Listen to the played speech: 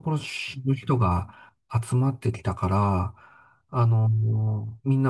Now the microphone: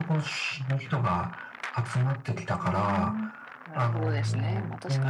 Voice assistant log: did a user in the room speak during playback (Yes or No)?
Yes